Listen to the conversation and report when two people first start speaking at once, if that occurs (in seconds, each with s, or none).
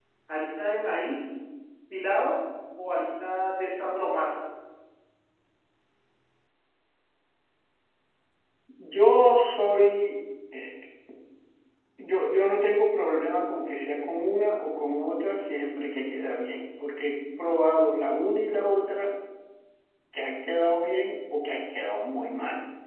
none